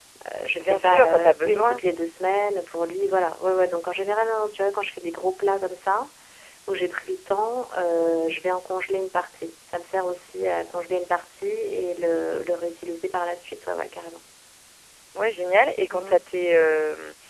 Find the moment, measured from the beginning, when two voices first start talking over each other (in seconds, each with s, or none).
0.6 s